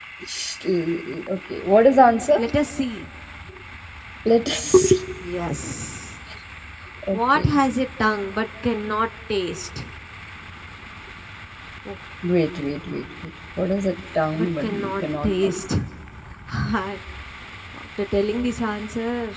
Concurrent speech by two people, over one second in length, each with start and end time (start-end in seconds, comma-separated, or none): 14.4-15.6